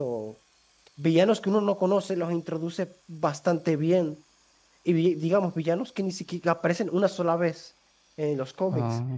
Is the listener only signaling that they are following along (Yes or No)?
Yes